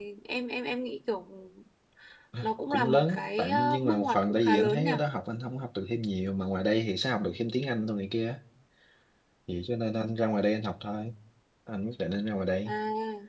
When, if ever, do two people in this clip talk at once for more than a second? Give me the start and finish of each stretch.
2.7-4.9

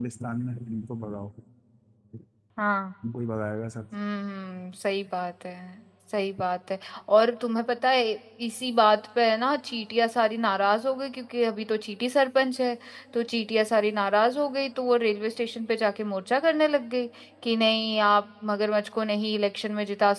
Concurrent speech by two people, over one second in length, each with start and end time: none

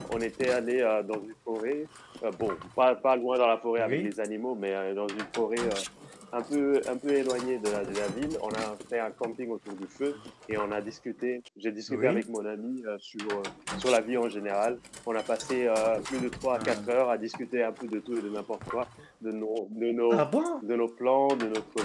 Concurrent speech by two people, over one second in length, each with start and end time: none

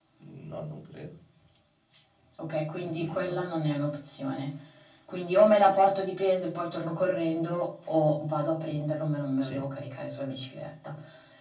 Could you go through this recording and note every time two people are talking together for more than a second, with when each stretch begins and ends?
none

